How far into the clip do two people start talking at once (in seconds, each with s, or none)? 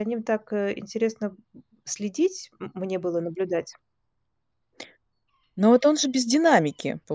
none